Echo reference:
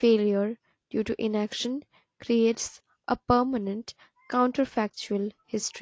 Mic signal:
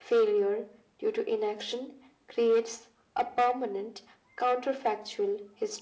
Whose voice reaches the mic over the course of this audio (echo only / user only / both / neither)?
echo only